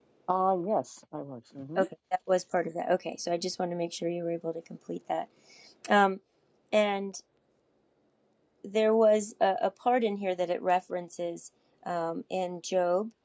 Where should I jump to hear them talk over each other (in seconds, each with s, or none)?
none